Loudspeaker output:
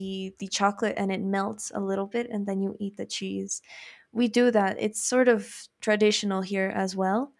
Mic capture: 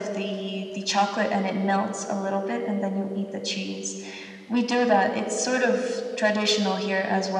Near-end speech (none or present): none